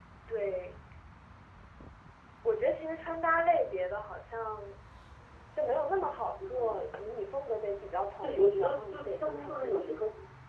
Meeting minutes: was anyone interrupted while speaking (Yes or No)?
Yes